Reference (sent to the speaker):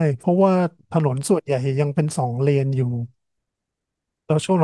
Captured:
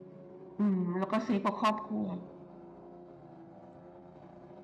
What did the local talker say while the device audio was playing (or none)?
อืมแล้วก็ซื้อกับครอบครัว